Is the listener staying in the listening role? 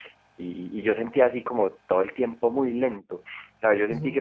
Yes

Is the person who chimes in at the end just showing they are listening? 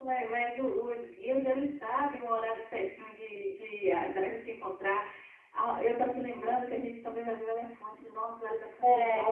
Yes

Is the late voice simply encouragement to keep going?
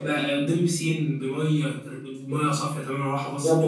No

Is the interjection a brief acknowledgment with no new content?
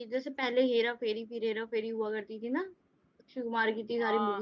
No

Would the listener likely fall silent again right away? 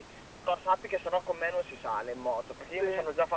Yes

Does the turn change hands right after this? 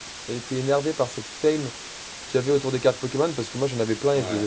No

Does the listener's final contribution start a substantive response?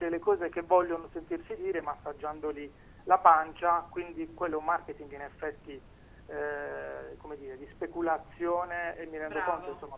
No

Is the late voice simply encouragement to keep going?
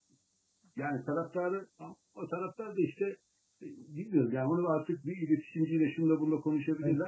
Yes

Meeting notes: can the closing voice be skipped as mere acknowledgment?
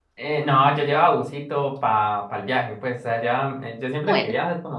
Yes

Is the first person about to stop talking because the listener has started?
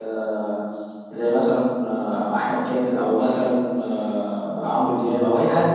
No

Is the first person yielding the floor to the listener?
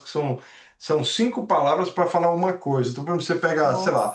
No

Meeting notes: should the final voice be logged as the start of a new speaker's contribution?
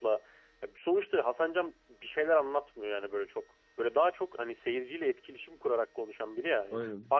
No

